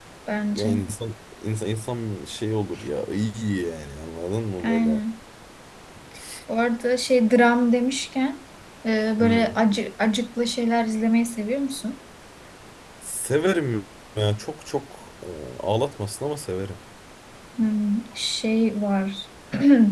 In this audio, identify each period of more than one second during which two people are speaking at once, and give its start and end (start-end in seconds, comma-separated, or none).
none